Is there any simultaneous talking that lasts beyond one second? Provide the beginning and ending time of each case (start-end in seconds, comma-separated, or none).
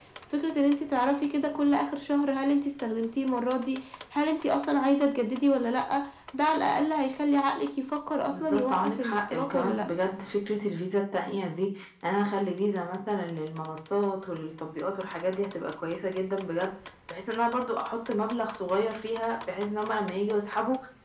8.3-9.8